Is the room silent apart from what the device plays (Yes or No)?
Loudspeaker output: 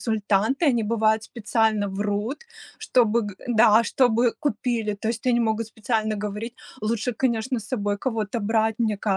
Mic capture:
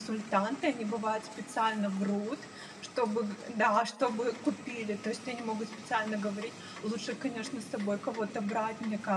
Yes